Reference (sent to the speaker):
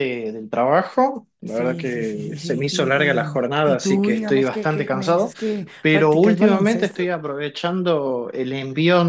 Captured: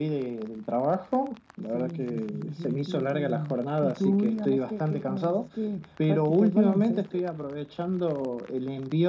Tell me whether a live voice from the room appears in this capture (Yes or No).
No